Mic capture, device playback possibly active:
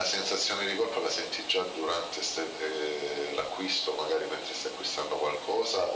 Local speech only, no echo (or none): none